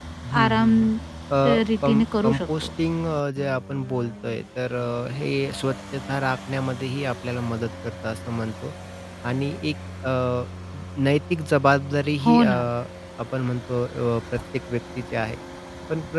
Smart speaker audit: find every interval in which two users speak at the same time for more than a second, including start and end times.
1.5-2.7

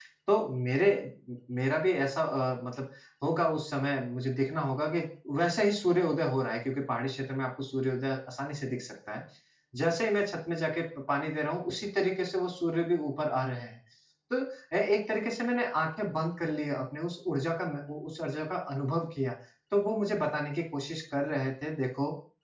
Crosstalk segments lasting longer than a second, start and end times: none

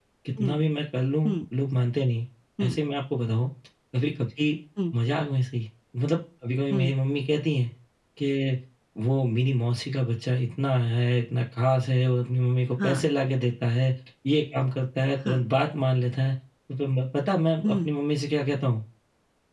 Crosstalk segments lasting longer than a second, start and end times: none

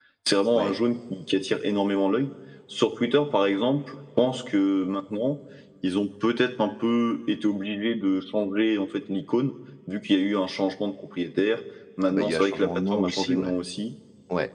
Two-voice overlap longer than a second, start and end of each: 12.1-13.6

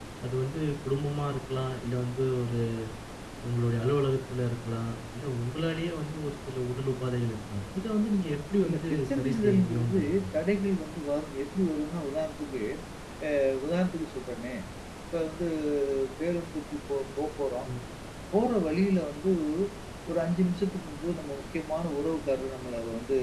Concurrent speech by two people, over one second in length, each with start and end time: 8.7-10.4

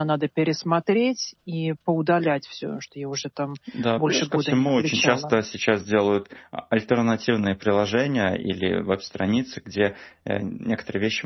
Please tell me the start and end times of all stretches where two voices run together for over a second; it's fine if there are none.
4.0-5.4

